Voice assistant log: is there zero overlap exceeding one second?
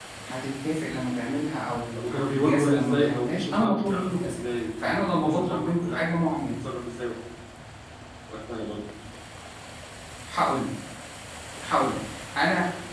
No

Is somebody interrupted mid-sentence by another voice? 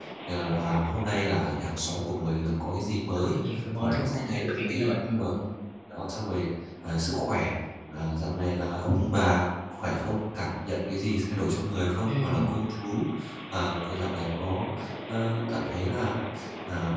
Yes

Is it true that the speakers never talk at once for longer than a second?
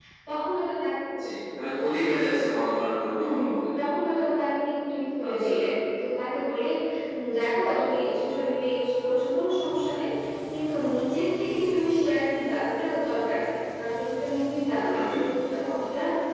Yes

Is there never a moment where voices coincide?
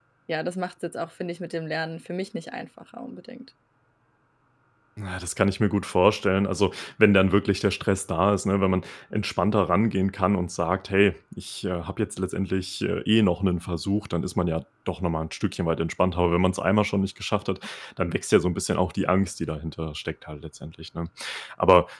Yes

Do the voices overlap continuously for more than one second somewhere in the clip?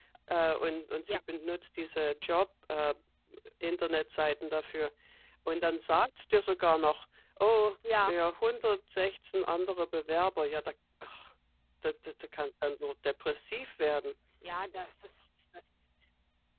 No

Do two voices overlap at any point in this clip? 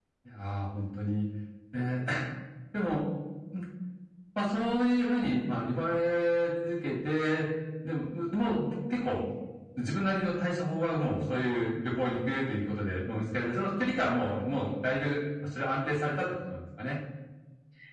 No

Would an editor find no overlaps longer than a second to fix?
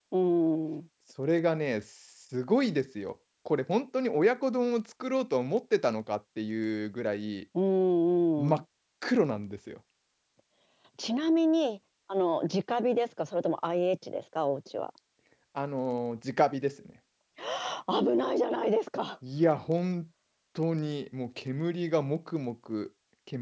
Yes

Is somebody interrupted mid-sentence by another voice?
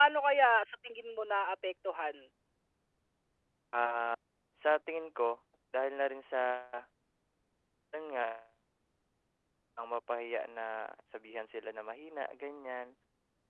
No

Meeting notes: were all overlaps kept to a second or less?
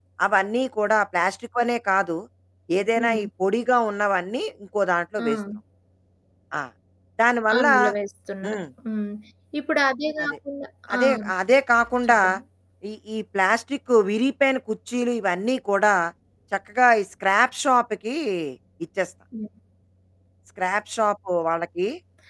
Yes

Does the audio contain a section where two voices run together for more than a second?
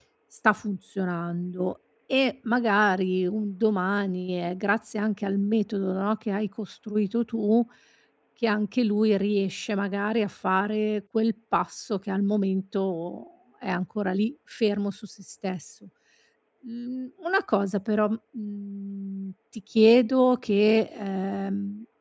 No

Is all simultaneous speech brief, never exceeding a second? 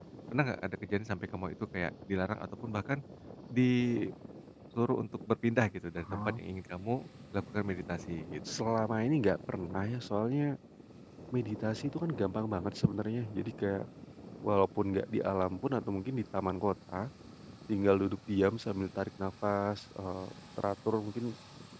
Yes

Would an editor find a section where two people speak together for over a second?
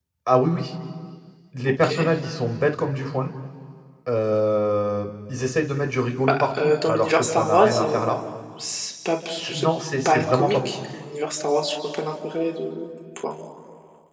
Yes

